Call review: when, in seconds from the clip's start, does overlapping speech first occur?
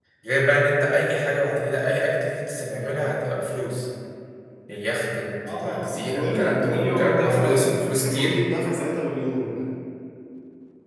6 s

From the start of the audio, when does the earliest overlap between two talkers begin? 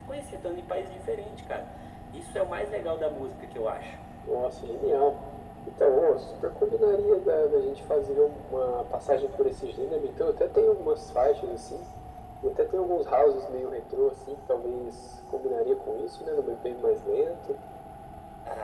none

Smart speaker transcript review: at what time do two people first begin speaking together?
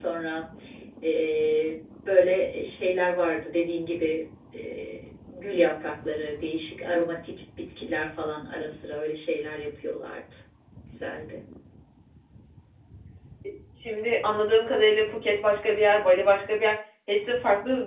none

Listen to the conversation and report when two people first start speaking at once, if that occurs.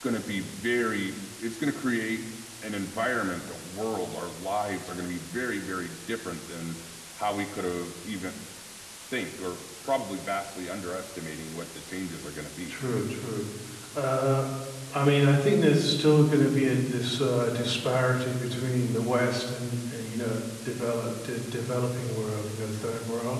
none

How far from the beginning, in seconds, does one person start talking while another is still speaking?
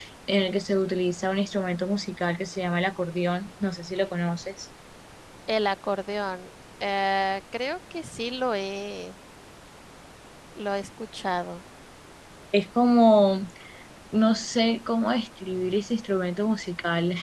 none

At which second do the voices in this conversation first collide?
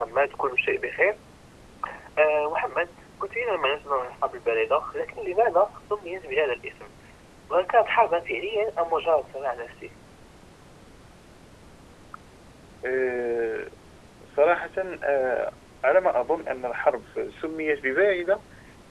none

